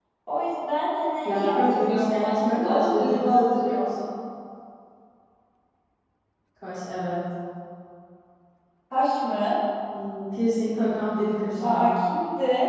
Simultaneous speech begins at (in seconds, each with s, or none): 1.2 s